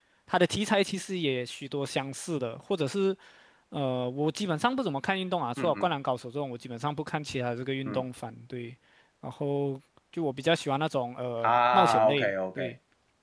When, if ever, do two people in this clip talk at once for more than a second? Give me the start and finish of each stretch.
11.4-12.7

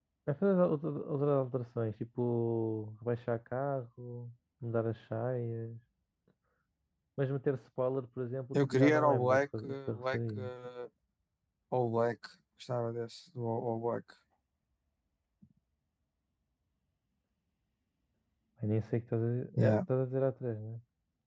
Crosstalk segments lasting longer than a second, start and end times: 8.5-10.4

